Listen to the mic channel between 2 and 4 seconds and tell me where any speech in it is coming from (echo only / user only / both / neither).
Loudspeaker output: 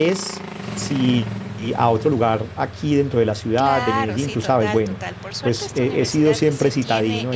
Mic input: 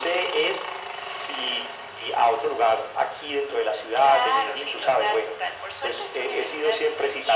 echo only